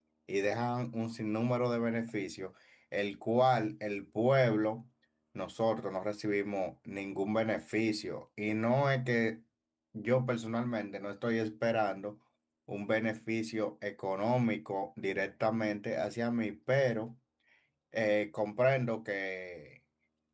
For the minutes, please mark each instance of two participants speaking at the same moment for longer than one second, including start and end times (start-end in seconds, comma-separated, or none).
none